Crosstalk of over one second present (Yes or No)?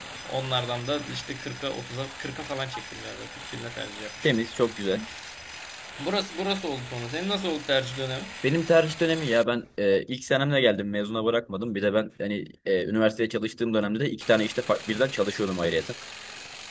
No